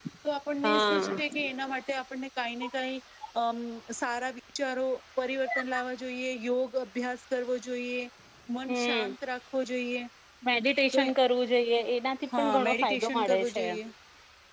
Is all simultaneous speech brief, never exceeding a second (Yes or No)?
No